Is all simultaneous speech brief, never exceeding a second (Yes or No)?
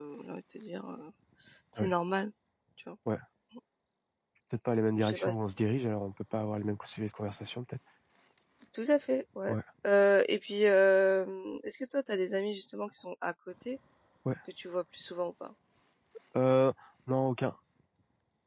Yes